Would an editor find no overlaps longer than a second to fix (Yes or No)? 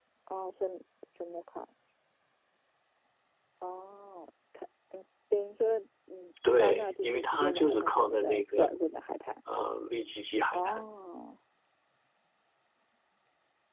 No